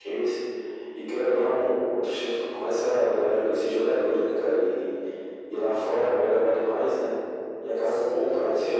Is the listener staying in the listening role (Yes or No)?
No